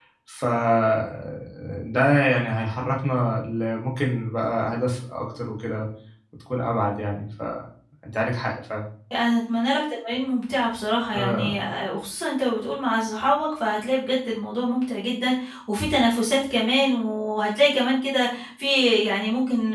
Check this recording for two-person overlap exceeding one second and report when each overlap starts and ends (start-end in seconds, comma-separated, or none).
none